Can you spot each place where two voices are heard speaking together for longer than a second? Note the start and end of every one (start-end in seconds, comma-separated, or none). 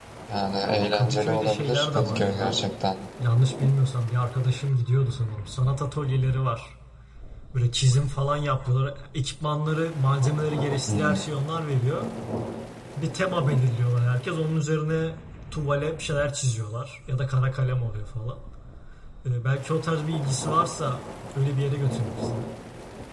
0.9-2.5